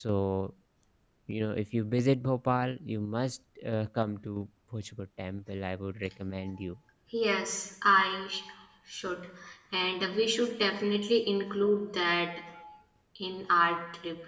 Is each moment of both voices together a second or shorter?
Yes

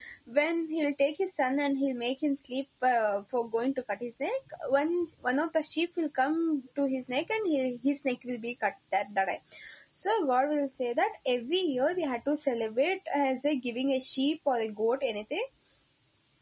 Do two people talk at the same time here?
No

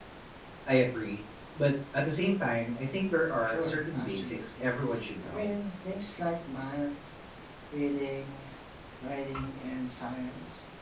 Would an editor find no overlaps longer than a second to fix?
No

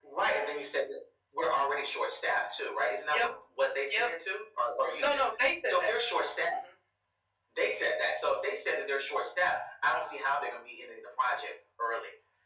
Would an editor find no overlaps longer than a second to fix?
Yes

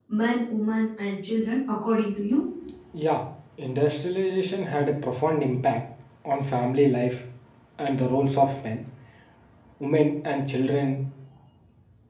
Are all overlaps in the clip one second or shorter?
Yes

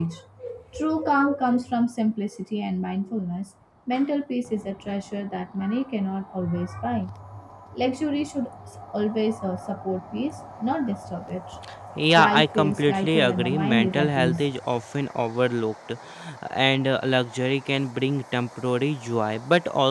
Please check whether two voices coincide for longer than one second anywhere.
Yes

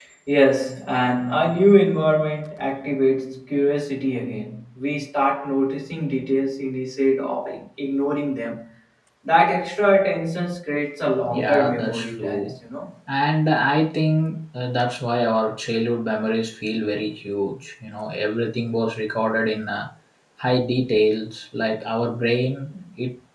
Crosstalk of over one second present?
Yes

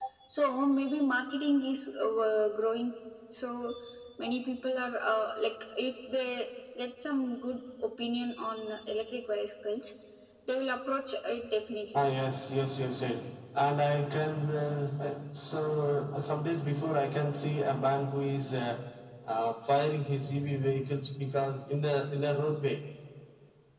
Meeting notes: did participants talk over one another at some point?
No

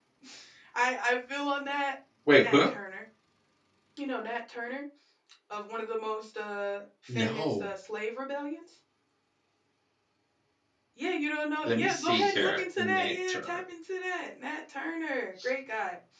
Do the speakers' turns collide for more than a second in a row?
Yes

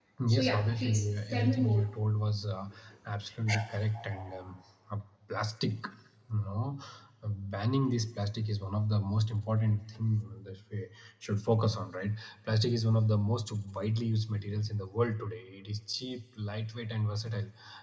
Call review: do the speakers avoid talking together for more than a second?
No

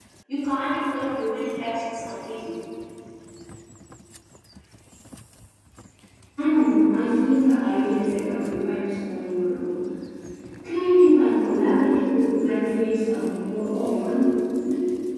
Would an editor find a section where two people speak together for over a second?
No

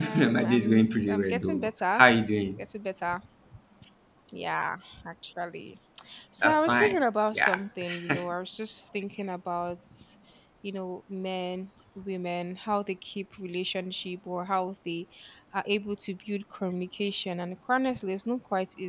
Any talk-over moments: Yes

